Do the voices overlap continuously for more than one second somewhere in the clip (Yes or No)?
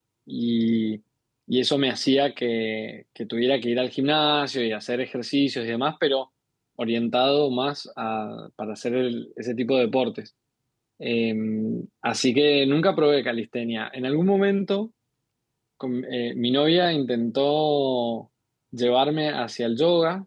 No